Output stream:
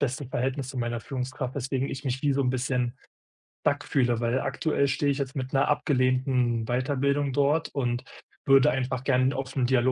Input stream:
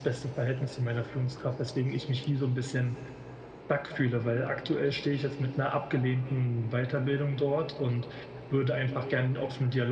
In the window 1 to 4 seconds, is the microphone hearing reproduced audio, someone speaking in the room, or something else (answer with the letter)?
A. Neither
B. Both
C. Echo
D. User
C